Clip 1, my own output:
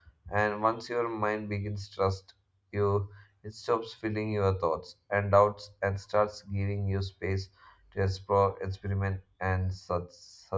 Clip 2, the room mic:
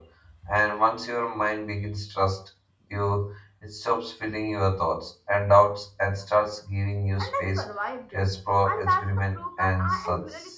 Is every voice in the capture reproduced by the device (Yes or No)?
No